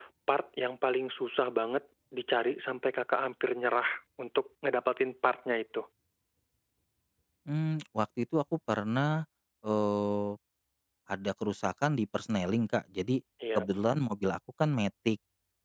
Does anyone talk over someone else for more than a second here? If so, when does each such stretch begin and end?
none

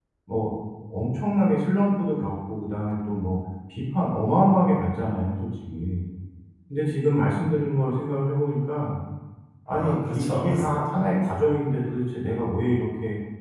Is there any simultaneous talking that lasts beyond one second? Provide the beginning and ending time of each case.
9.7-11.1

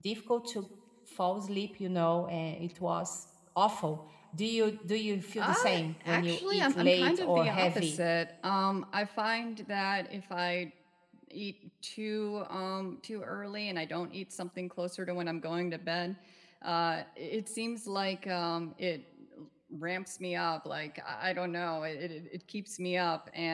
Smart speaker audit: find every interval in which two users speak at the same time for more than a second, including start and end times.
6.0-8.0

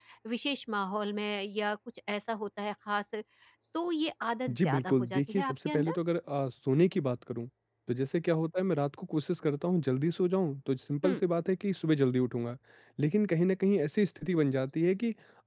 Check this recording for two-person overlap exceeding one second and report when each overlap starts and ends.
4.5-6.0

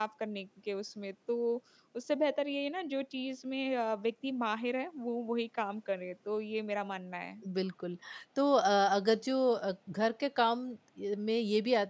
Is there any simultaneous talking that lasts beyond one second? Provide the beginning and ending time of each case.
none

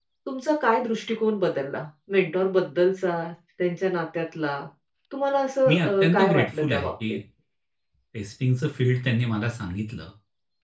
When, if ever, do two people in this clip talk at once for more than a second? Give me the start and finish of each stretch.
5.7-7.2

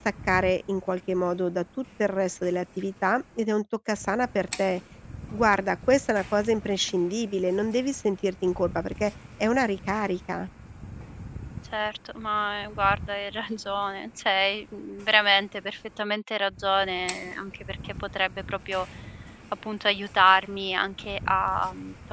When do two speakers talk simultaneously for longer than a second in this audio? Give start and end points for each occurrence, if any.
none

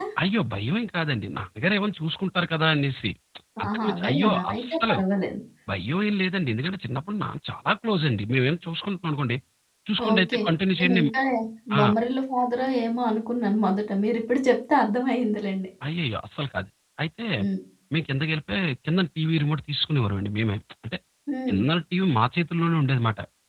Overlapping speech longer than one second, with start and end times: 3.7-5.0

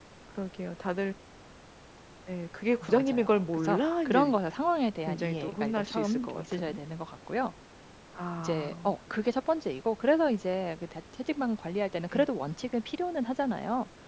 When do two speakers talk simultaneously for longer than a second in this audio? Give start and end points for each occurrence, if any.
2.8-4.4, 5.0-6.8

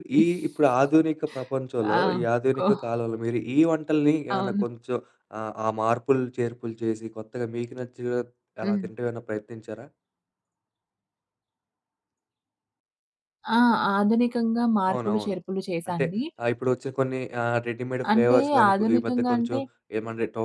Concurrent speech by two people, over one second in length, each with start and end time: 18.1-19.6

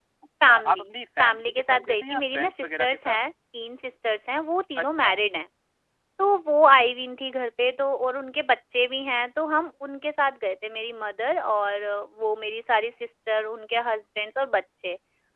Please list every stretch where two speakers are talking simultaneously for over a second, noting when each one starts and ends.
1.2-3.2

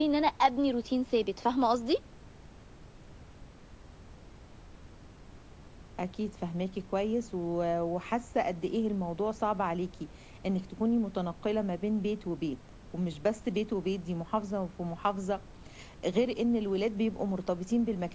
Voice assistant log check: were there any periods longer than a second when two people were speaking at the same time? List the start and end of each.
none

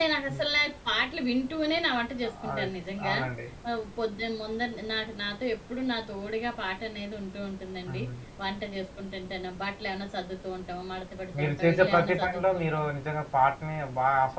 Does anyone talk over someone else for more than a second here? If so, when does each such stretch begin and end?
11.4-12.8

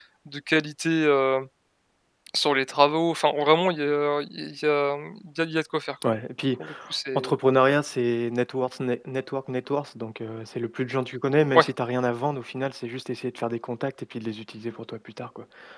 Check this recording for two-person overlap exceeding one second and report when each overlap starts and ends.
none

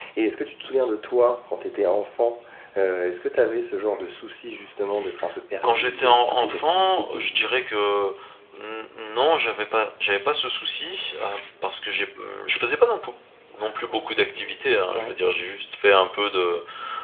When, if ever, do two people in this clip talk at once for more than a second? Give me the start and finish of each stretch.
5.6-7.5

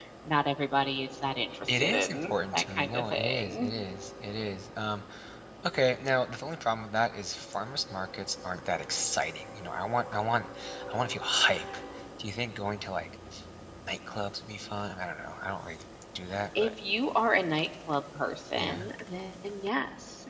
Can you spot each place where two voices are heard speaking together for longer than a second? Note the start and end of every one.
1.7-3.8

